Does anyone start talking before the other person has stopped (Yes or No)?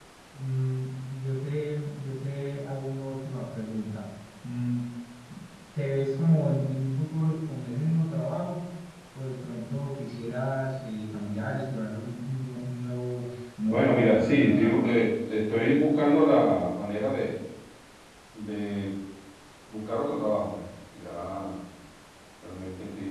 Yes